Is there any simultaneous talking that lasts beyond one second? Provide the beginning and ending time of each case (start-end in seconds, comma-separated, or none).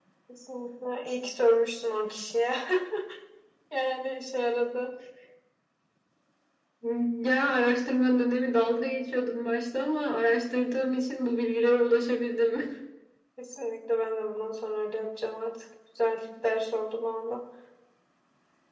none